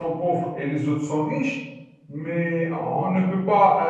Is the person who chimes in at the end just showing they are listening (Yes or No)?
Yes